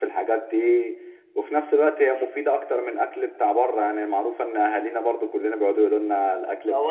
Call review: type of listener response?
taking over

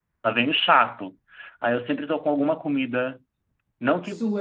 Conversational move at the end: listening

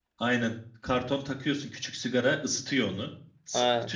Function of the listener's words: taking over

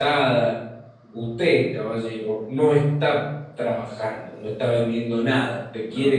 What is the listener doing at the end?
listening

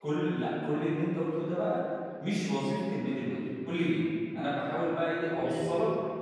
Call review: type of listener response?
listening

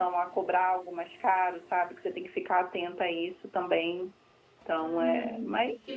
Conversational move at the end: taking over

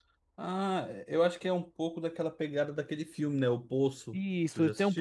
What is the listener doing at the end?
taking over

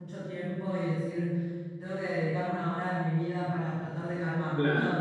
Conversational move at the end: taking over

